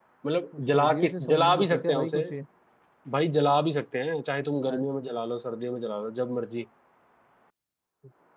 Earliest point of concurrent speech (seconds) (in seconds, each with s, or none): 0.6 s